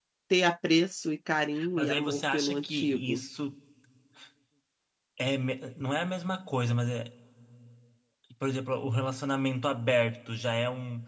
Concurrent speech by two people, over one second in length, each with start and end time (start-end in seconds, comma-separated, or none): 1.8-3.2